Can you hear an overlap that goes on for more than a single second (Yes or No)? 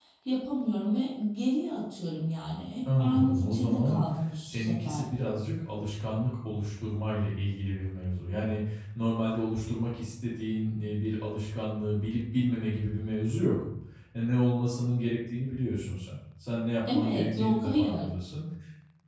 Yes